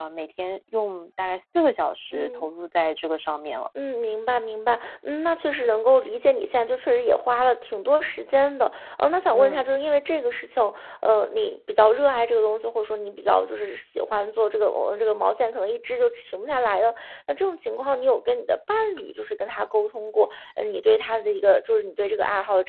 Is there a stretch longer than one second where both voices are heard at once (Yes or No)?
No